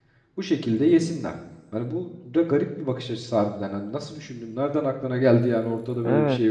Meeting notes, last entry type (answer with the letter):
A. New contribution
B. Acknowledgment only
A